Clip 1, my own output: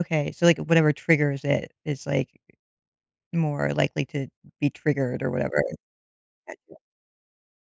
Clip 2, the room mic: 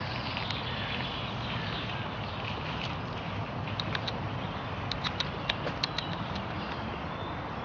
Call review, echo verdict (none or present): none